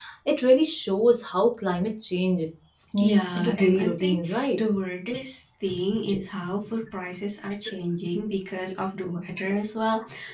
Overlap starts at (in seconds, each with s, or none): 3.0 s